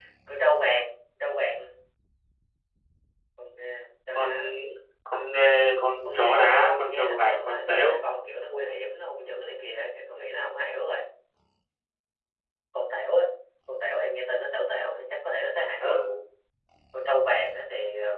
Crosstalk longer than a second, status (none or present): present